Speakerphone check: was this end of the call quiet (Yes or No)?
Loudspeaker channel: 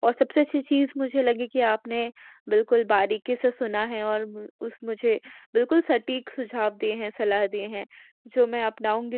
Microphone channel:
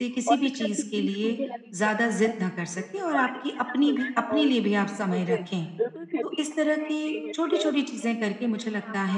No